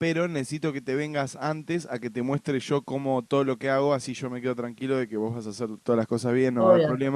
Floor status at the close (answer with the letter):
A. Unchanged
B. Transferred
B